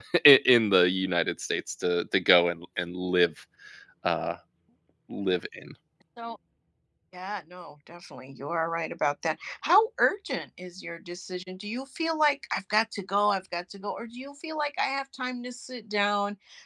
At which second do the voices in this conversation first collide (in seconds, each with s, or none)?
none